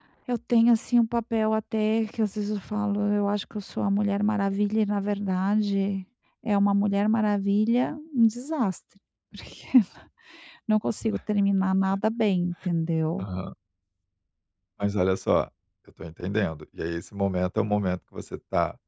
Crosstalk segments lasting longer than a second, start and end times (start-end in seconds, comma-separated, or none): none